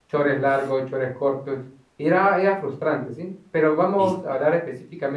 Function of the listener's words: listening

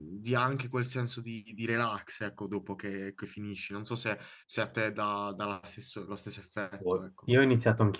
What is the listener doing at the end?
taking over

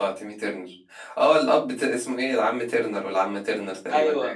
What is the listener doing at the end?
taking over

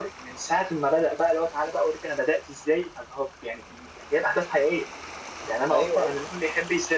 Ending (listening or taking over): listening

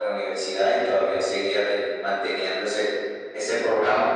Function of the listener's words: listening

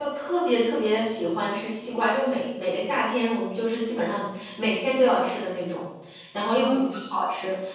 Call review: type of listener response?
listening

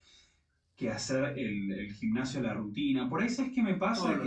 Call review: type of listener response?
listening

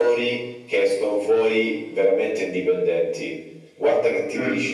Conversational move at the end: listening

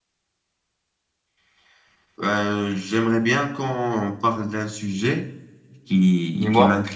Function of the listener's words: listening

